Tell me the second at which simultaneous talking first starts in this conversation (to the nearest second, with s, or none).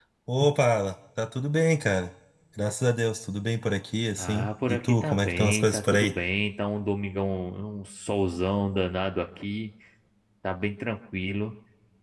4 s